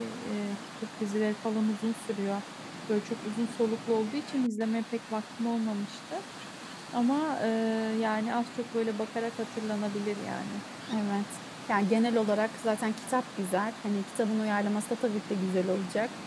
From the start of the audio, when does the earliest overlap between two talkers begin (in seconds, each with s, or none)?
none